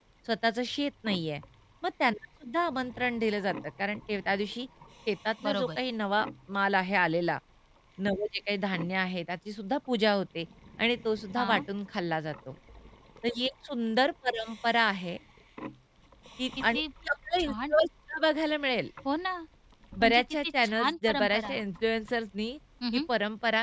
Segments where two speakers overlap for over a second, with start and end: 20.0-21.6

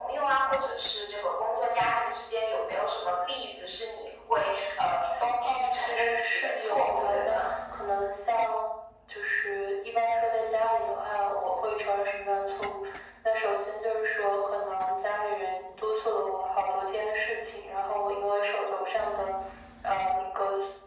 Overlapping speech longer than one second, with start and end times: 5.4-7.4

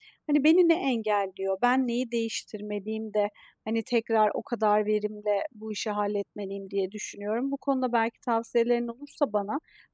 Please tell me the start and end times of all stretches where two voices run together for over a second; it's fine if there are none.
none

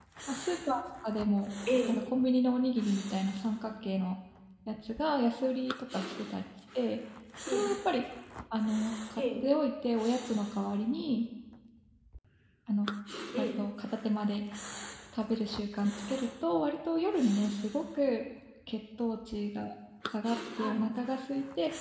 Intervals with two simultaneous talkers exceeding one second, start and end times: none

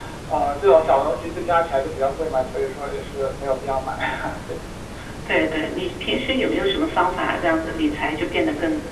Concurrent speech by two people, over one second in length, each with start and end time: none

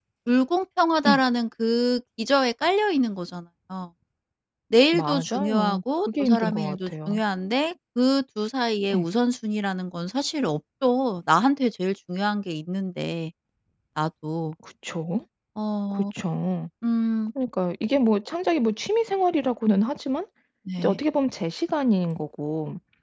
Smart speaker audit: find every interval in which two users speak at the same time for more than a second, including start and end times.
4.9-7.2

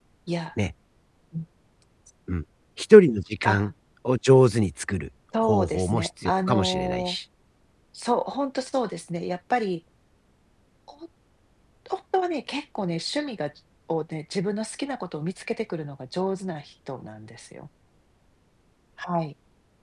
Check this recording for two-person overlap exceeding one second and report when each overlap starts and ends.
5.4-7.2

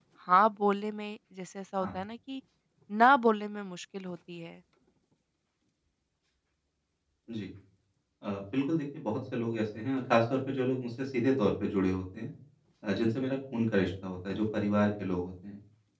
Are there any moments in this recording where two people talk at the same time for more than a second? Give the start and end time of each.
none

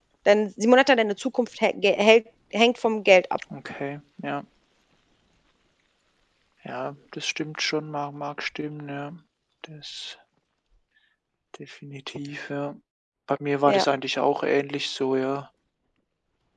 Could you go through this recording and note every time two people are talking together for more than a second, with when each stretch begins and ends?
none

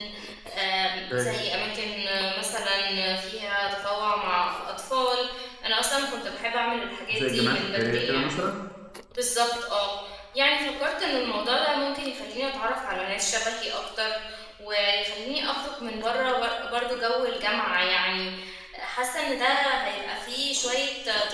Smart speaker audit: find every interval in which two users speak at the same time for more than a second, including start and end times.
7.1-8.3

